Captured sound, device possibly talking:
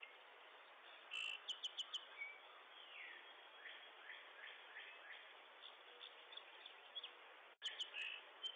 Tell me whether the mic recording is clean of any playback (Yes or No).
Yes